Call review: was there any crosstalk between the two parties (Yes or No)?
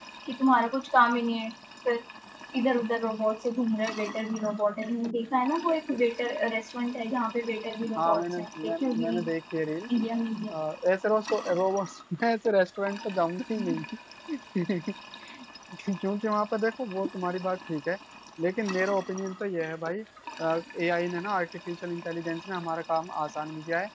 Yes